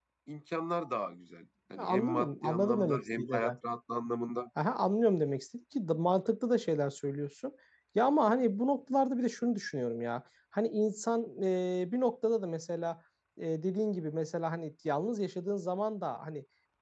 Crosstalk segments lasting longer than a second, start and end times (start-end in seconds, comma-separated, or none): 1.8-3.5